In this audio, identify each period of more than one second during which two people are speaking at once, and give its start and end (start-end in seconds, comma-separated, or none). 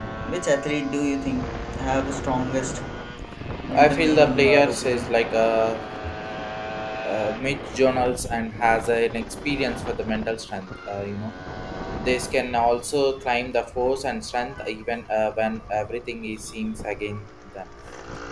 3.7-5.1